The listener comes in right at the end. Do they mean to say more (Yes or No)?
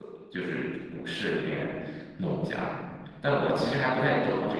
No